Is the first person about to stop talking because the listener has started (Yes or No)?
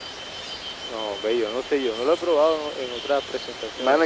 Yes